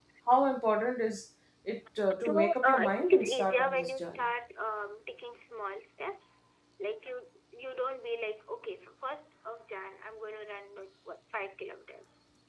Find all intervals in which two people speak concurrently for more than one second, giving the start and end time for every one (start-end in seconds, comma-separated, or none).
2.2-4.2